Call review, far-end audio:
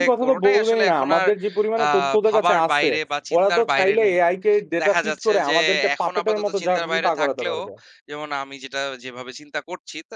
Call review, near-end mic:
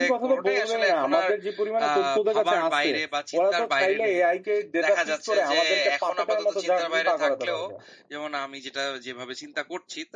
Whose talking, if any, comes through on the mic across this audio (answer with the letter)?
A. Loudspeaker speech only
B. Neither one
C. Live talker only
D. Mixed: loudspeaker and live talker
A